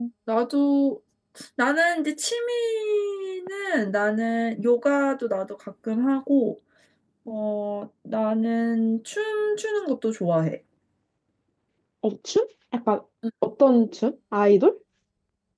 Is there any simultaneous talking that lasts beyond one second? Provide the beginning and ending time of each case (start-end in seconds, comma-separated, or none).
none